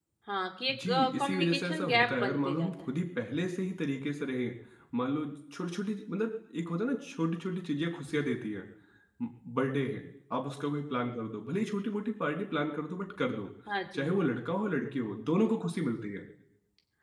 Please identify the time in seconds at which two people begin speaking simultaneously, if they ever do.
0.7 s

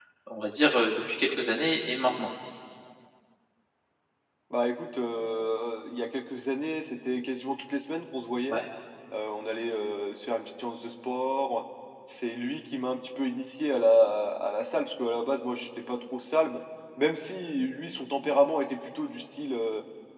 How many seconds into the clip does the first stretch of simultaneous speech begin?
none

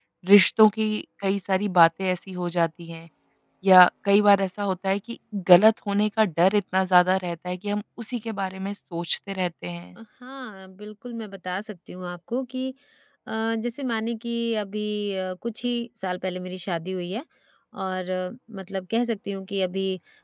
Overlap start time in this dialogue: none

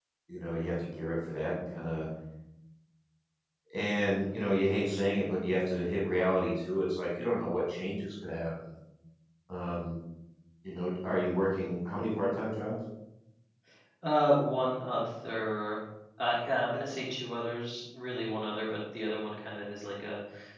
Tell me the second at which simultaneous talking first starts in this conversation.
none

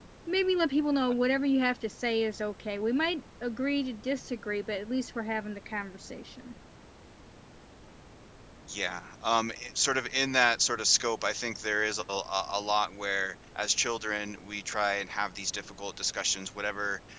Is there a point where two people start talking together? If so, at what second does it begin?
none

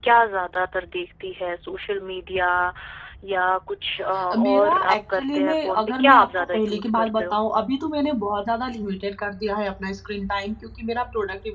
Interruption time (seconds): 4.2 s

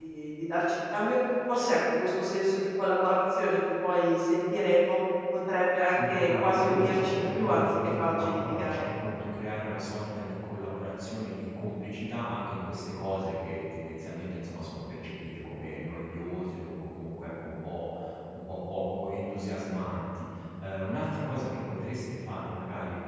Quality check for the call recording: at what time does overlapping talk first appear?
5.9 s

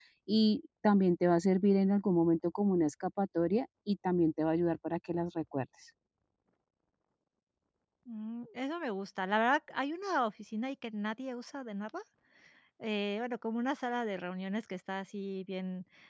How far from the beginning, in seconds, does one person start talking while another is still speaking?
none

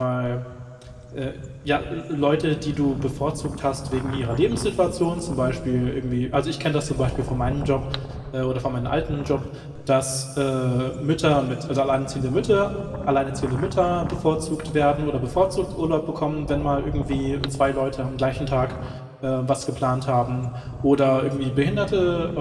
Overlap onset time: none

